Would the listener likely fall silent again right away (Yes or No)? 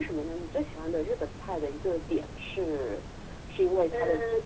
Yes